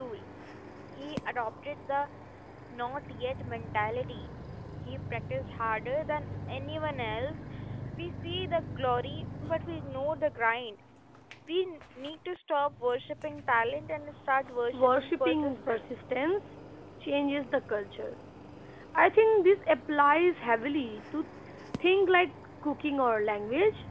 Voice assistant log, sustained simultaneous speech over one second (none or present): present